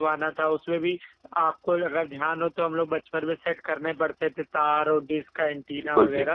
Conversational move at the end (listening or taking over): listening